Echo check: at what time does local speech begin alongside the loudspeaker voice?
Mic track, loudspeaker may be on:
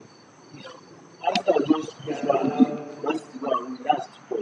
2.0 s

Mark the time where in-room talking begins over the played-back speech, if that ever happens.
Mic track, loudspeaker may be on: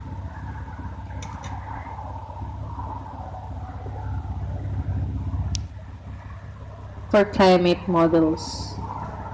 7.1 s

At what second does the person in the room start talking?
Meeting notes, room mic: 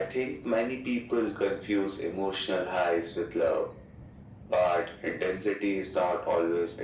none

